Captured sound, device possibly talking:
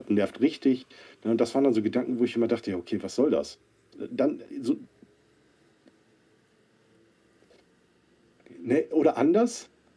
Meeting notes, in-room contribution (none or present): none